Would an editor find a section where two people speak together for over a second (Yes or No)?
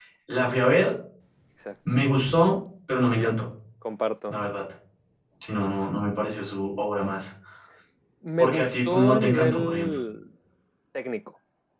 Yes